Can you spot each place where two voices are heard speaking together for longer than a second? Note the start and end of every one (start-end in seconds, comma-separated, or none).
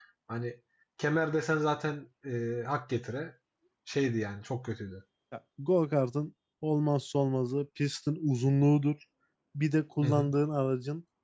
none